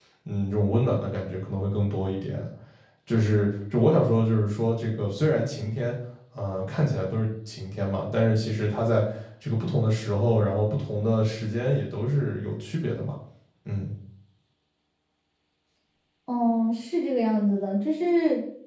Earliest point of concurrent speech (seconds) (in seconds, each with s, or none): none